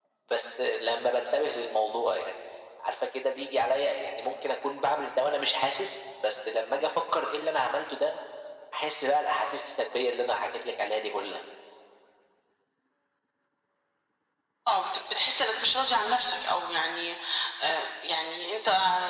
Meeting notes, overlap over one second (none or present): none